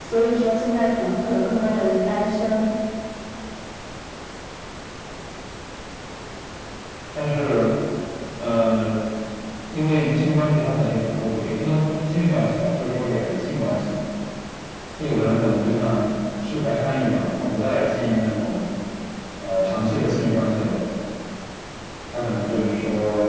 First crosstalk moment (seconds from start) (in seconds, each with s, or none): none